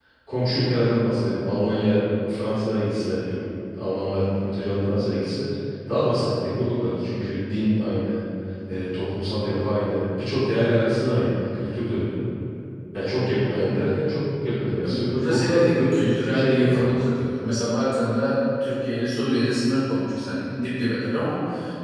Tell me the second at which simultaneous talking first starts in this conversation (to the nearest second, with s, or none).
15 s